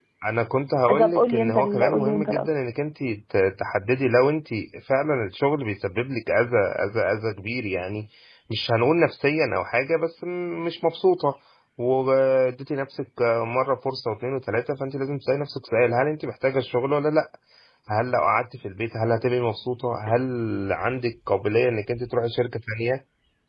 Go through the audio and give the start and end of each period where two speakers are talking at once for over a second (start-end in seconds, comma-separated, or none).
1.0-2.5